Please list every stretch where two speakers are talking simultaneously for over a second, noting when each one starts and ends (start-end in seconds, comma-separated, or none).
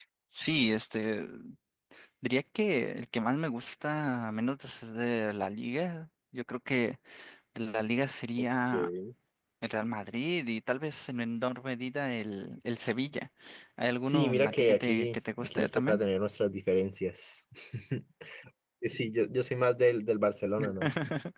14.1-16.0